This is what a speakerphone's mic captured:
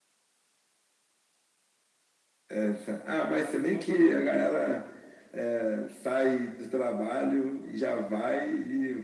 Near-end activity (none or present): present